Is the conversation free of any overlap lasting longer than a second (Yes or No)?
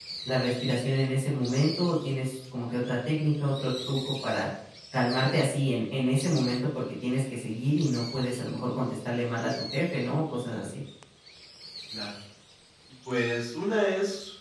Yes